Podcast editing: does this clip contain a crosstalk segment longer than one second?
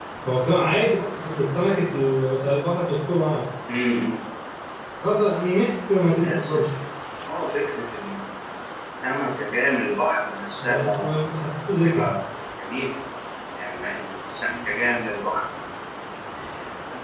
No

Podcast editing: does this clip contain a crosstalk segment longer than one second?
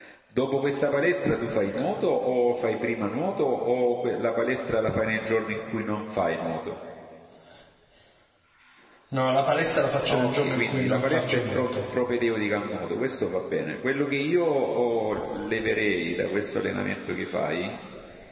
Yes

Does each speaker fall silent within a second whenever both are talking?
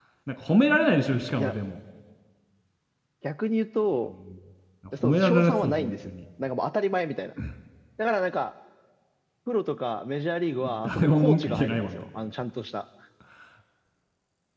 No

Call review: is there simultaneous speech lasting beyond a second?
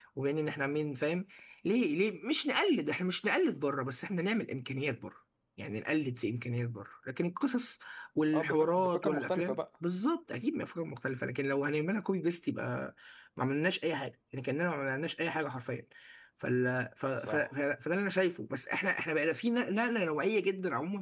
Yes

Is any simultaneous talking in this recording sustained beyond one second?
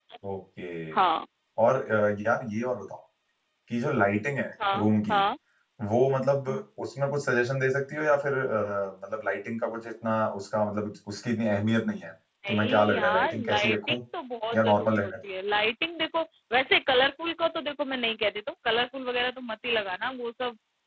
Yes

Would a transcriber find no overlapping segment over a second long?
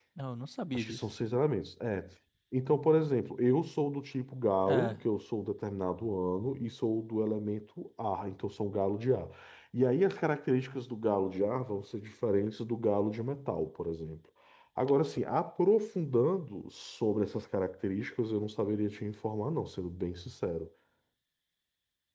Yes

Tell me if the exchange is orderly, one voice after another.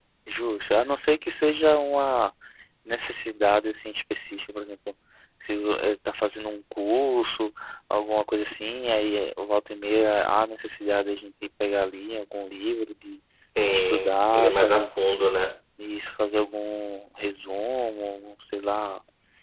No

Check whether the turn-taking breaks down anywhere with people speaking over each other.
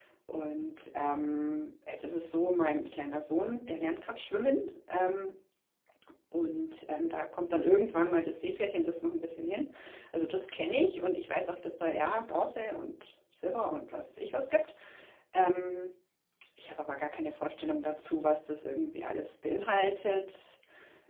No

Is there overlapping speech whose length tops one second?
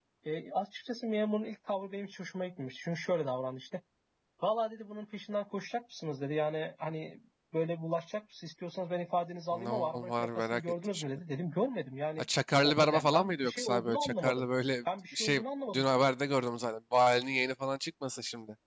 Yes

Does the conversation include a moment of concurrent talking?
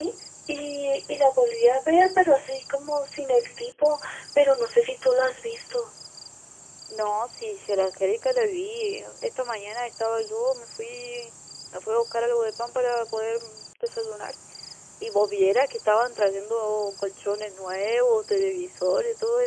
No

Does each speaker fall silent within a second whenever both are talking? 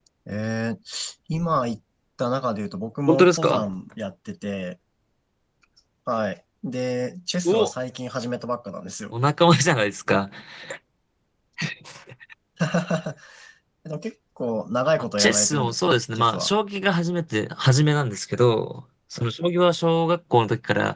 No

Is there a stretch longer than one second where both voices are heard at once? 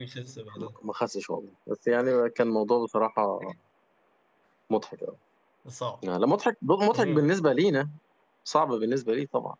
No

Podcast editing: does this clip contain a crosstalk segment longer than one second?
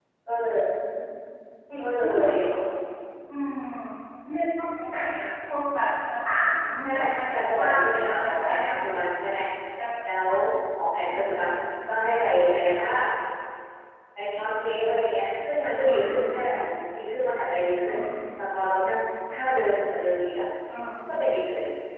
Yes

